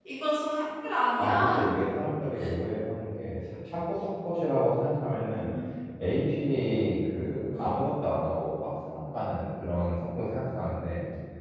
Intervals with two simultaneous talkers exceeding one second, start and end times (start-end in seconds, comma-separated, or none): none